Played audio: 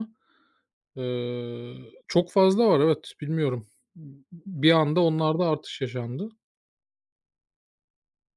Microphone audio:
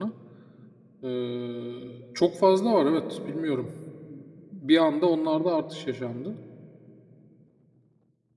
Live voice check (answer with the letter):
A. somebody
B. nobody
B